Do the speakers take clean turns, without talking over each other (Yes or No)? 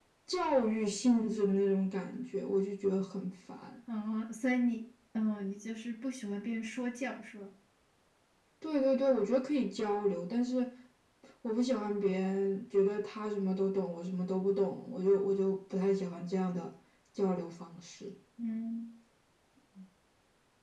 Yes